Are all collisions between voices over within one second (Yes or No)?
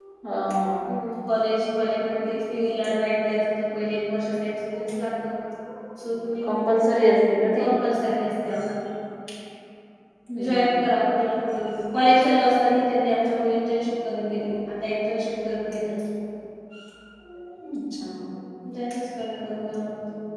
Yes